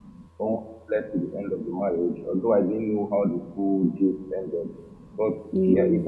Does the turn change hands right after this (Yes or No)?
No